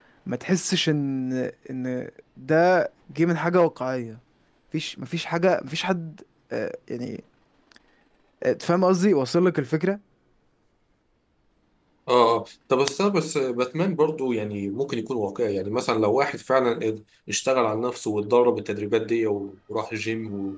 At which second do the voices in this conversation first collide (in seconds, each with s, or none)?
none